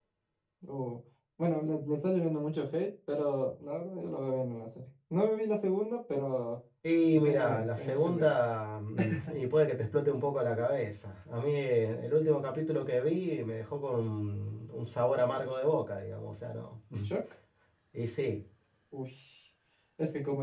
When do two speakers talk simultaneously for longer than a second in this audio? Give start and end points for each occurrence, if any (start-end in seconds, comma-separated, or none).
7.1-8.3